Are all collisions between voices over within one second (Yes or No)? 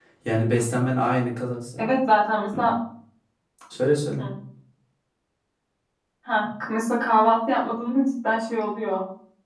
Yes